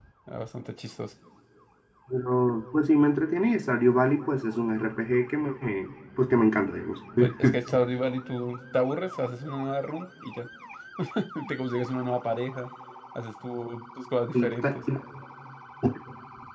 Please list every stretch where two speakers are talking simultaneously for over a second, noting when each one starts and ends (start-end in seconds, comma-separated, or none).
none